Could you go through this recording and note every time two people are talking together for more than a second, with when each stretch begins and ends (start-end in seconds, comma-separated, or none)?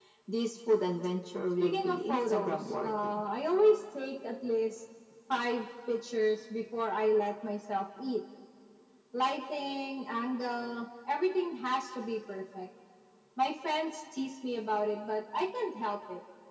1.6-3.2